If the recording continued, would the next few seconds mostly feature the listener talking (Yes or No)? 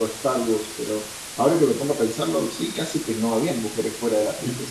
Yes